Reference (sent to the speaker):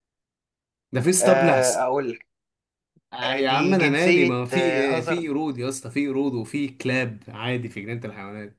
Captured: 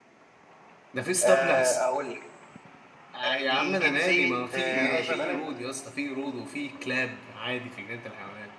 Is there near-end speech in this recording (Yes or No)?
Yes